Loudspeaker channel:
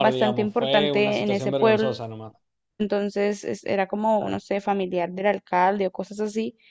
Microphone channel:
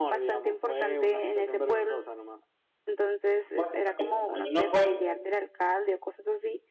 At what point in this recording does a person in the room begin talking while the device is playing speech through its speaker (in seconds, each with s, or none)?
3.5 s